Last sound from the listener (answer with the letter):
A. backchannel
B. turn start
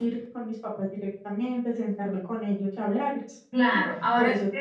B